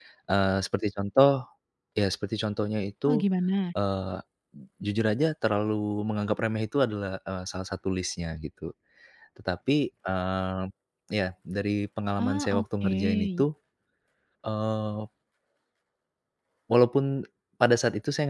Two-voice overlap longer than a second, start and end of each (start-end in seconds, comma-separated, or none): 12.2-13.4